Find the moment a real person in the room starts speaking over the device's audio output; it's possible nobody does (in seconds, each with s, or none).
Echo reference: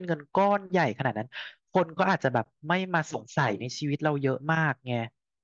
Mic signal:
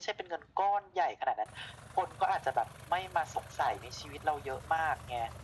none